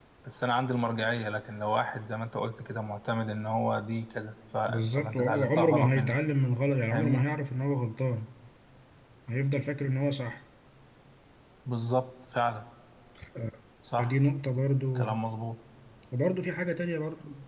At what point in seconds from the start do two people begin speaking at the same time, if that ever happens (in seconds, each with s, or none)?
4.7 s